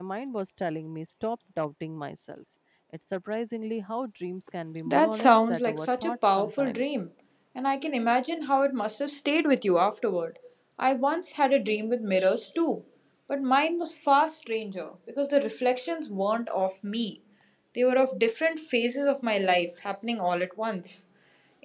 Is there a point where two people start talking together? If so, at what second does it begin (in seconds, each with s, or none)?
4.9 s